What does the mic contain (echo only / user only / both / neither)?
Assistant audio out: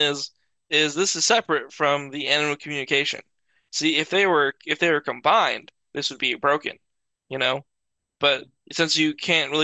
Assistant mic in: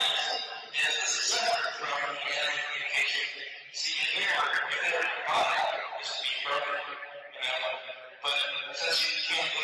echo only